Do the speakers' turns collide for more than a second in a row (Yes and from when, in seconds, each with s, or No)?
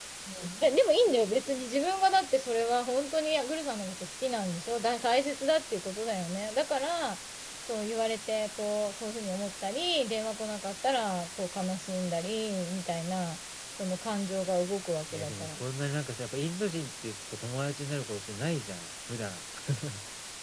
No